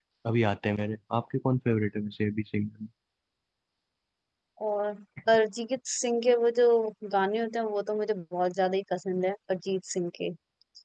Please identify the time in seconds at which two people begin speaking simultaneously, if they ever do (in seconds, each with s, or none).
none